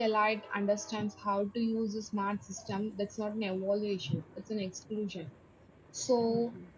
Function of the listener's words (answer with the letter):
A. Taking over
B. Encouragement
B